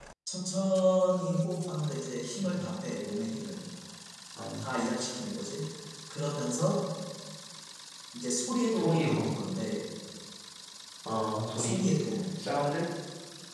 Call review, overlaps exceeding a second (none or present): none